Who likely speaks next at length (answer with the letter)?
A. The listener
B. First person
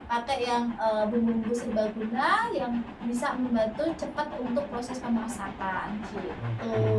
A